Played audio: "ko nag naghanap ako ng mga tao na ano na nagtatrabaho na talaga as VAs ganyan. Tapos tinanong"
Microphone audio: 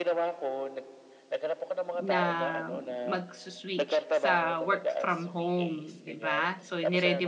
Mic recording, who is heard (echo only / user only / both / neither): both